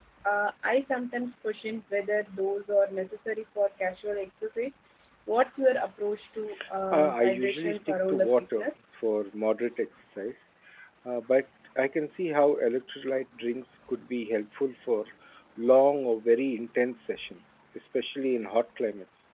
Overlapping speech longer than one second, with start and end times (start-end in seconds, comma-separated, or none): 6.9-8.8